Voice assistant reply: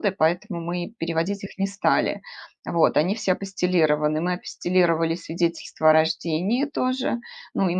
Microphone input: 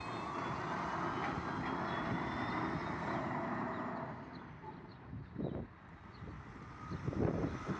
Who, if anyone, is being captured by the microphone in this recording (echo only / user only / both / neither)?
neither